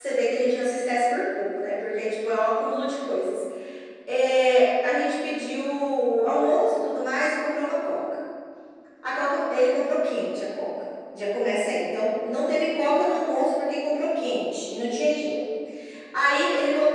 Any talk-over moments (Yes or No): No